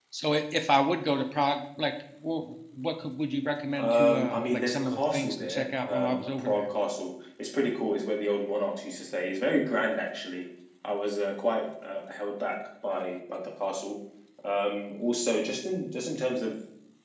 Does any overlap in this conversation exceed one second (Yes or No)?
Yes